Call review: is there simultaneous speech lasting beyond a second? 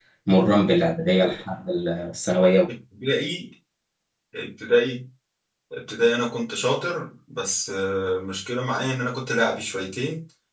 No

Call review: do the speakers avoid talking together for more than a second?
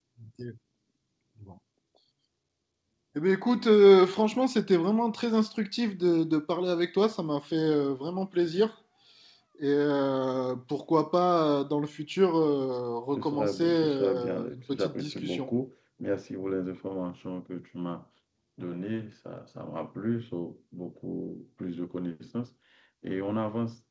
No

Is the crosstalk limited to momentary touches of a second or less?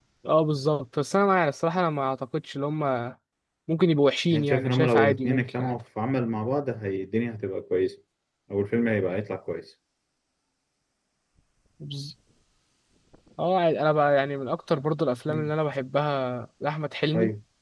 No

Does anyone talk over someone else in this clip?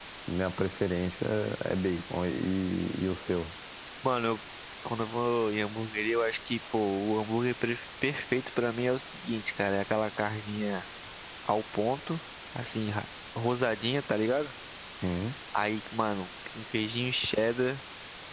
No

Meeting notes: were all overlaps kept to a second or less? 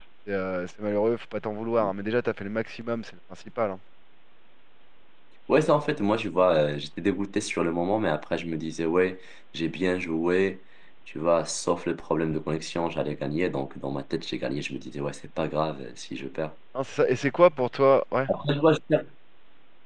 Yes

